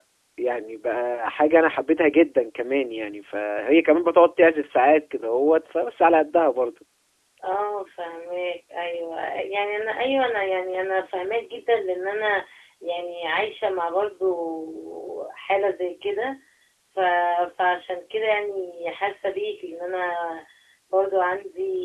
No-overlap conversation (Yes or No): Yes